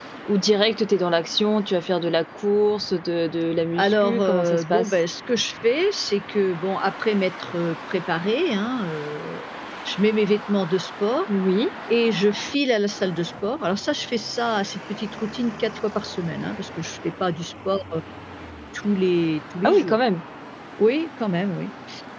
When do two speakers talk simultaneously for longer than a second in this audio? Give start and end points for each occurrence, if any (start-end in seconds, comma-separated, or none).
3.8-5.0